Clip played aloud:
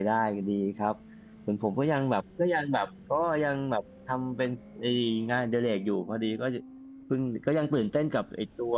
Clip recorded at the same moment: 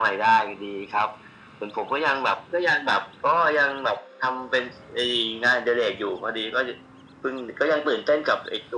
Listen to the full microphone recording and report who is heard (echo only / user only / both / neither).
echo only